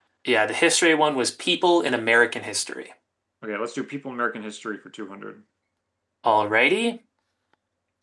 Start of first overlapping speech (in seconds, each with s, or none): none